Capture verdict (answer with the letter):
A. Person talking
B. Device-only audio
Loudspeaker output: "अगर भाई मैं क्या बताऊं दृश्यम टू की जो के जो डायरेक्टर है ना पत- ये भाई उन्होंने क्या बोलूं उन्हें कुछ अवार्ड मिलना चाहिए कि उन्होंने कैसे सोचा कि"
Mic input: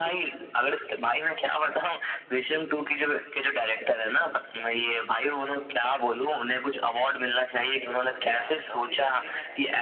A